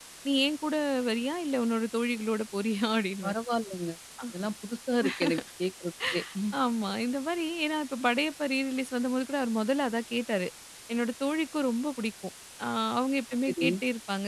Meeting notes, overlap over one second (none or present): none